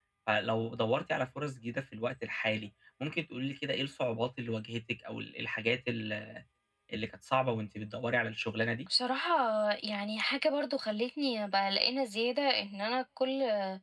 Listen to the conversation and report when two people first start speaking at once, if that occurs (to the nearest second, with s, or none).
none